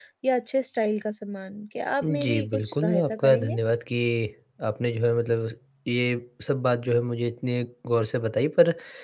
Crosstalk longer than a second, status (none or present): present